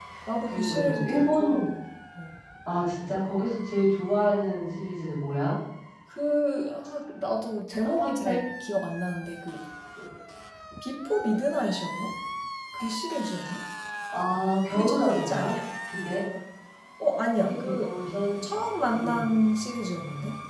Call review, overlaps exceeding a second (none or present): present